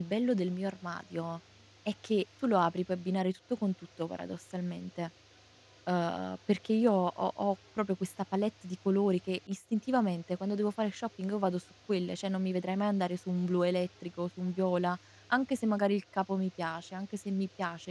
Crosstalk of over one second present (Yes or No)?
No